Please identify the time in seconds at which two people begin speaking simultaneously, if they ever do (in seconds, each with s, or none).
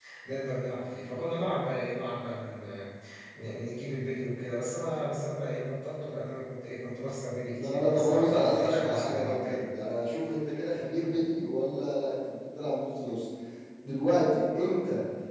7.5 s